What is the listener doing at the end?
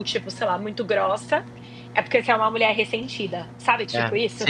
taking over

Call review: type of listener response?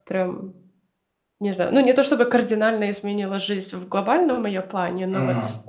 listening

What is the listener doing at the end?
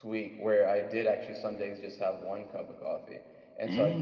listening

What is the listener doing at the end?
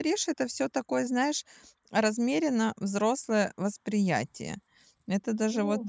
listening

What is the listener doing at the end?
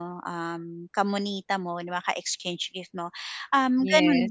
listening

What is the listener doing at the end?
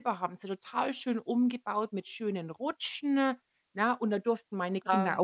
listening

